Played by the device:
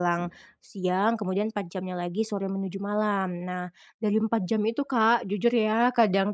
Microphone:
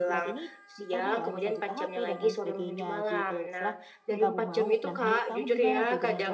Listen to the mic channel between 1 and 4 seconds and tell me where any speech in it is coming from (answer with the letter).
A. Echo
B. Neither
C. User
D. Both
D